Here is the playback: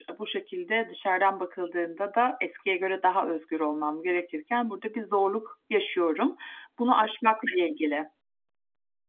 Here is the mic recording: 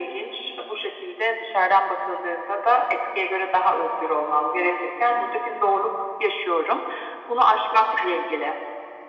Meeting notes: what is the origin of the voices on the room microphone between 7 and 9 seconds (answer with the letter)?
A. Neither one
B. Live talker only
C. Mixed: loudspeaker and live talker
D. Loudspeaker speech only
D